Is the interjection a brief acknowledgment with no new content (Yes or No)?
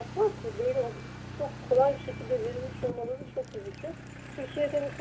Yes